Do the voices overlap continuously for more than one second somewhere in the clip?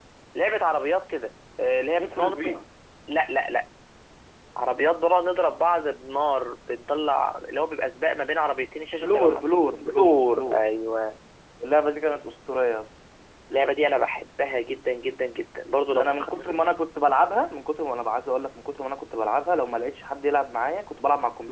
Yes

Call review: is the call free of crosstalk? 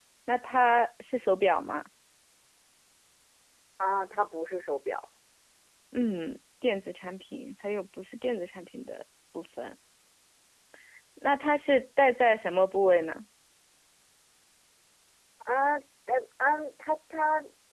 Yes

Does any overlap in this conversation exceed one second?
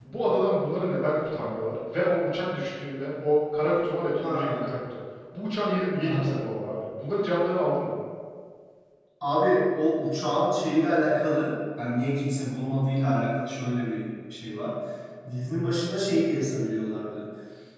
No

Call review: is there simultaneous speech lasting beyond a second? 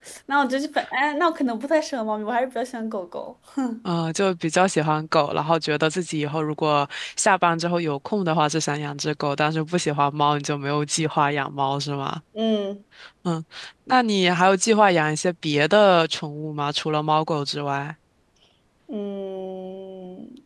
No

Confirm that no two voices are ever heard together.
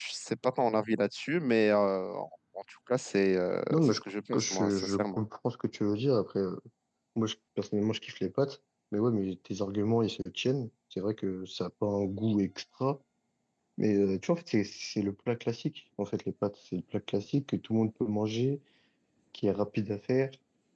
No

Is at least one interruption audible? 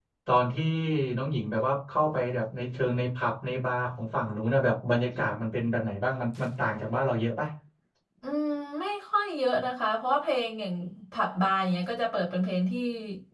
No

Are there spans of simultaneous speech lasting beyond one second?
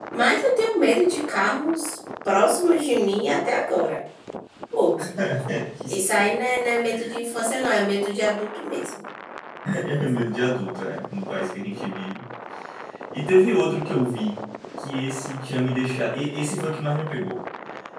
No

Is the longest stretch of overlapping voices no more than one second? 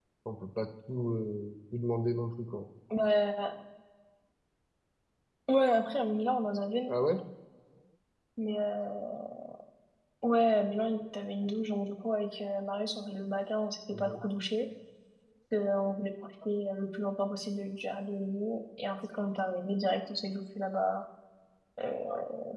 Yes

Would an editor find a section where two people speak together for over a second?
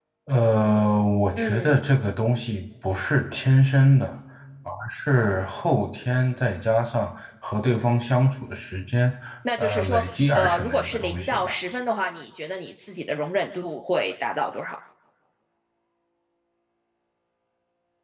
Yes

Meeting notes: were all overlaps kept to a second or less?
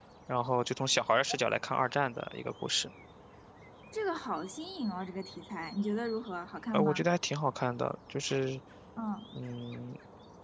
Yes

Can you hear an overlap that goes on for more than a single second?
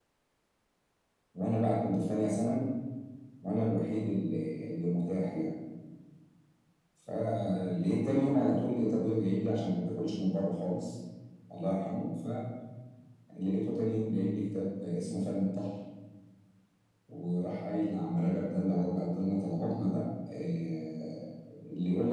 No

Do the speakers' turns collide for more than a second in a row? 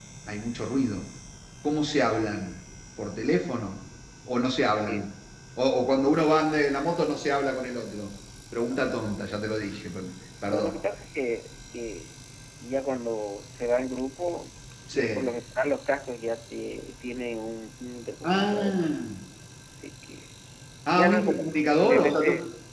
Yes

